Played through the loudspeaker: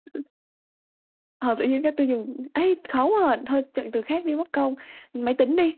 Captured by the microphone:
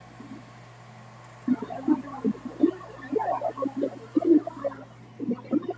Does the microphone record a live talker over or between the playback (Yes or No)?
No